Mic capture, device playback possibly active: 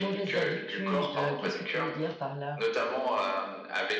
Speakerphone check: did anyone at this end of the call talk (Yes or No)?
Yes